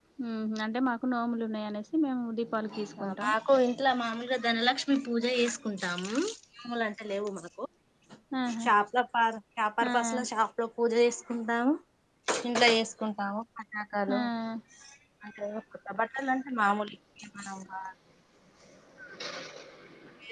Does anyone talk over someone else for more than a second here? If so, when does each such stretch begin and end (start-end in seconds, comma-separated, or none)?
none